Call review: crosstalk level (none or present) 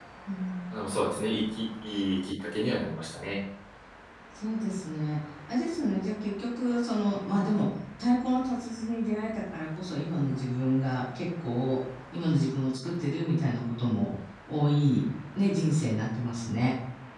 none